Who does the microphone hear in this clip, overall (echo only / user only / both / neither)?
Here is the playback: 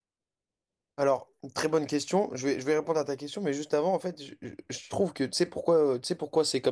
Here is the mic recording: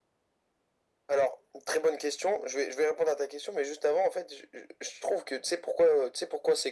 echo only